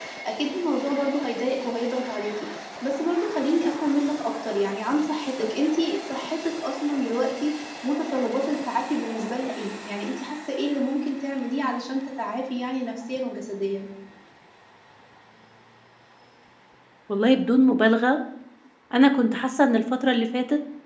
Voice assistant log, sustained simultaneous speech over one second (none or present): none